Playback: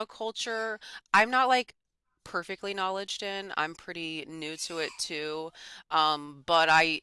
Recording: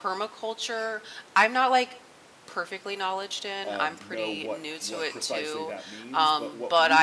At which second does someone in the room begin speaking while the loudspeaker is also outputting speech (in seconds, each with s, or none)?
3.6 s